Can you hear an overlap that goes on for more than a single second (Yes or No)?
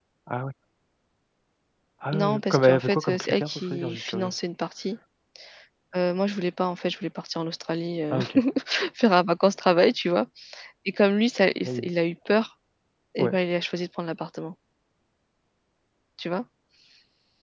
Yes